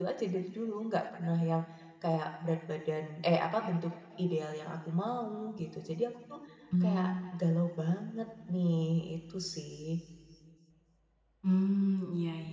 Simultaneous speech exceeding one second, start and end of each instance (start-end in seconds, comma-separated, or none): none